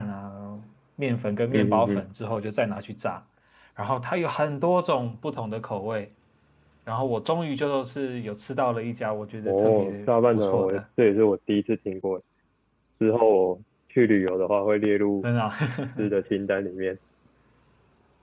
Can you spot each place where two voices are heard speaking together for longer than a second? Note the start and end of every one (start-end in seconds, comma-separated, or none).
9.4-10.8